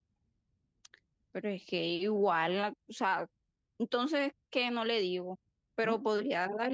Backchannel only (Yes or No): Yes